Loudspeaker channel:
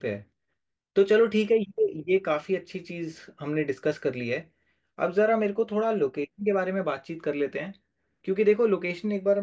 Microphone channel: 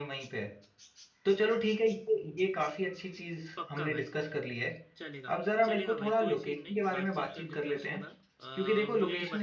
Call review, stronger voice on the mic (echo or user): echo